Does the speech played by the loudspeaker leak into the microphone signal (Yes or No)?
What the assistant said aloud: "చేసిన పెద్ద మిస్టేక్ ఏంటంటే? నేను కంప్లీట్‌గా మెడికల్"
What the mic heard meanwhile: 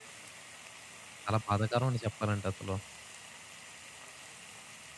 No